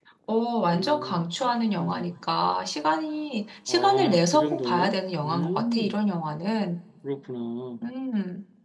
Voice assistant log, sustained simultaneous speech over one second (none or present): present